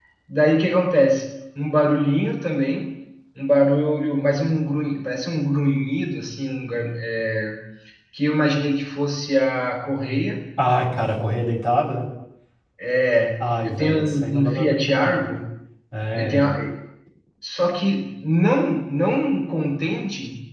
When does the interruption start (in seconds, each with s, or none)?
13.4 s